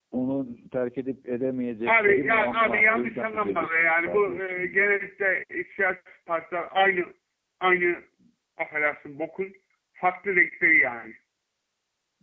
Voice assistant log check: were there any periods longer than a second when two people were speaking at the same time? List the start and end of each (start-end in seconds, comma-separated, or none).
1.9-4.9